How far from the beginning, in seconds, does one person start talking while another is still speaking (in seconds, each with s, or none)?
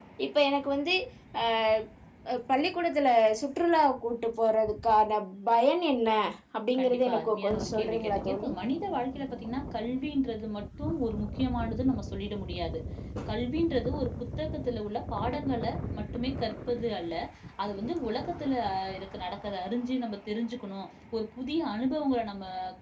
6.8 s